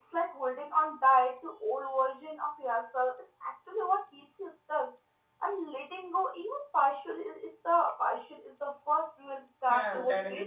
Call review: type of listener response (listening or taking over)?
taking over